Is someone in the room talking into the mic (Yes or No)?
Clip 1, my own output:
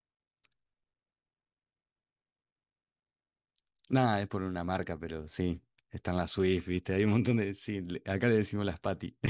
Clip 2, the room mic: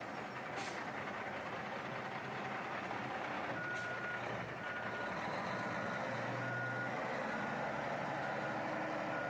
No